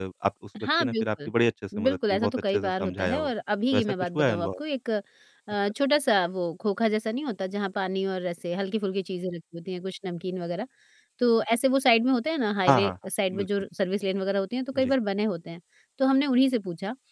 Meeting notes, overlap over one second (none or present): present